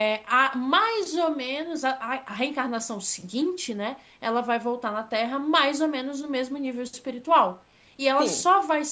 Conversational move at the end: listening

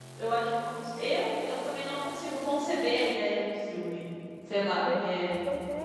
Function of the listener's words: taking over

